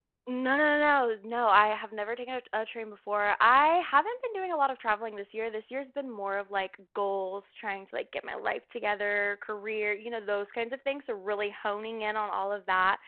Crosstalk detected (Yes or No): No